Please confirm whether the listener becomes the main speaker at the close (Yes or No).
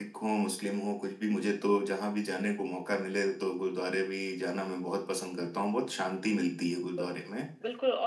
Yes